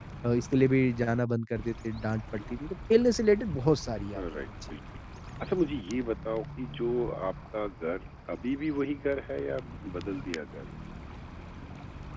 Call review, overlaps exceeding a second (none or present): none